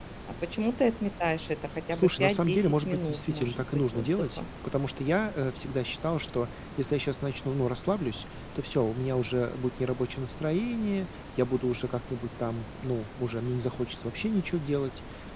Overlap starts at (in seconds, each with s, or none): 1.9 s